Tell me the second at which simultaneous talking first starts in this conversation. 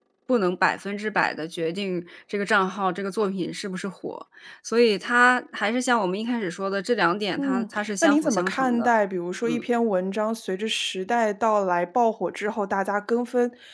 7.4 s

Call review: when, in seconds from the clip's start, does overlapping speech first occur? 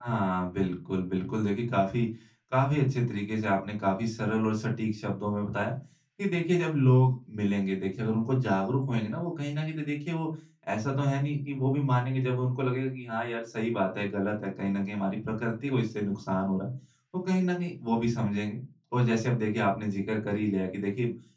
none

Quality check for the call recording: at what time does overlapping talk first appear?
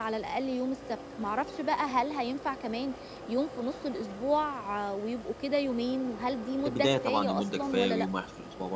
6.7 s

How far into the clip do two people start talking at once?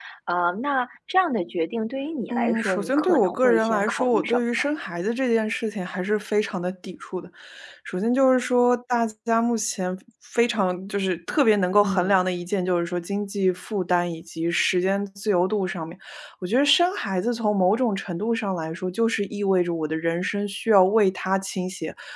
2.3 s

